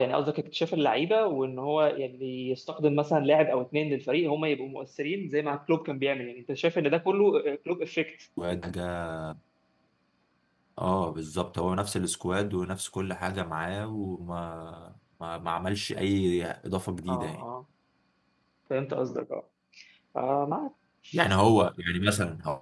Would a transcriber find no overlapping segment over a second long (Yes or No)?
Yes